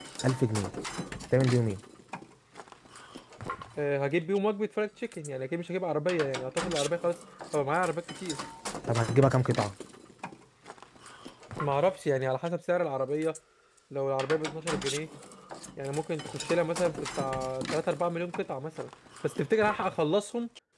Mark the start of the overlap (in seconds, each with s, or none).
none